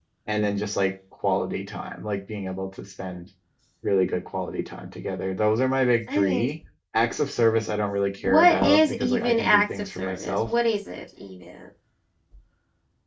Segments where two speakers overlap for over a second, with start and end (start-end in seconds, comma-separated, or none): 8.2-10.5